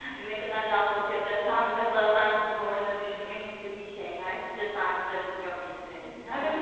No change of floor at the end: No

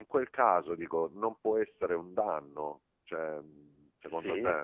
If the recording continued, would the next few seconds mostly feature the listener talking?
Yes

